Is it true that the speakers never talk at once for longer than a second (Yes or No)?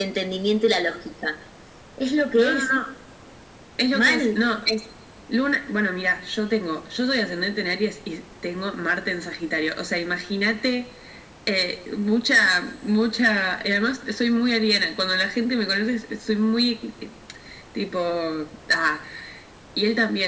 Yes